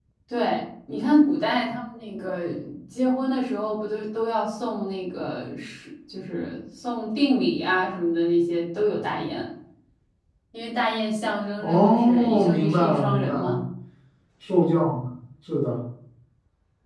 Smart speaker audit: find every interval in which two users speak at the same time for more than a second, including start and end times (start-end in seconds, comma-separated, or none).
11.6-13.6